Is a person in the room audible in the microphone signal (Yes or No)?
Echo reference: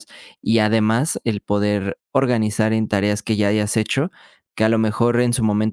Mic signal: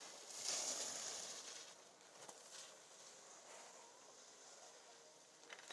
No